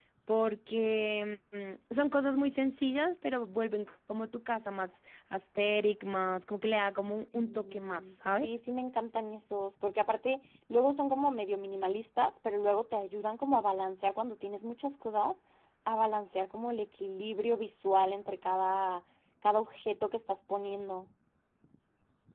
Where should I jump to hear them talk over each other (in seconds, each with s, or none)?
7.1 s